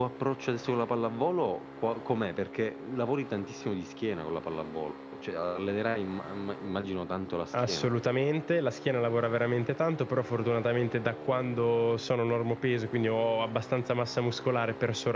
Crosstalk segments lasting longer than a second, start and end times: none

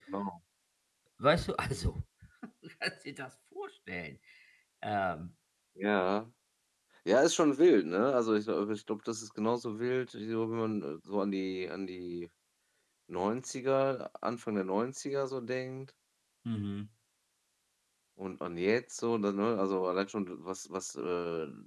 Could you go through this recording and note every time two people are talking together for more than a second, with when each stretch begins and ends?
none

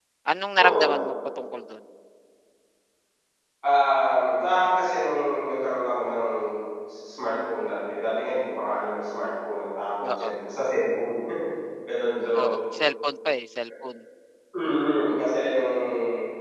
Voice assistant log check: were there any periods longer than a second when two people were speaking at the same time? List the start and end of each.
none

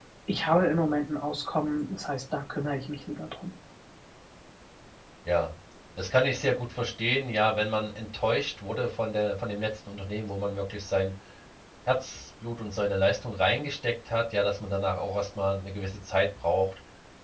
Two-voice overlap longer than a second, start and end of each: none

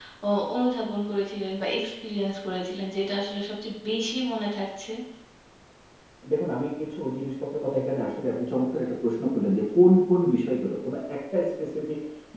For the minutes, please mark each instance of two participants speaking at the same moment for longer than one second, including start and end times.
none

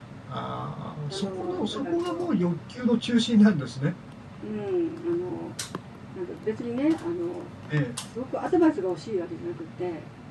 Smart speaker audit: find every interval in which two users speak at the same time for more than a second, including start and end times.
1.1-2.3

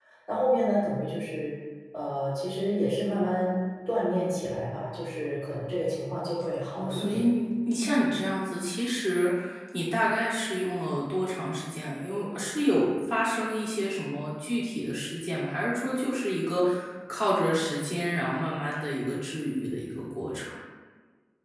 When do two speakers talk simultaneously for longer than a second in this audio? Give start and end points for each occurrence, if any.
none

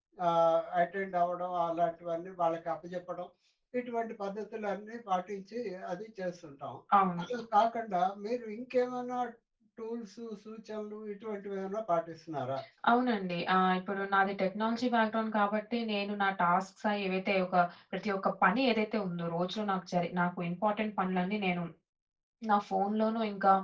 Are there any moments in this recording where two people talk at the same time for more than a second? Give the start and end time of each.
none

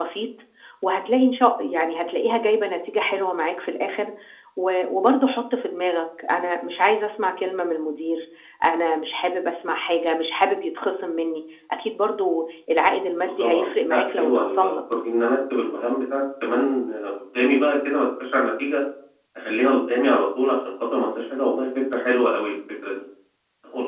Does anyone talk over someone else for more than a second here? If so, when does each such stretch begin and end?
13.2-14.7

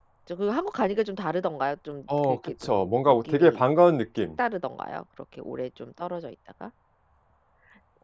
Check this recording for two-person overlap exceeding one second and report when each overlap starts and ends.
2.2-3.6

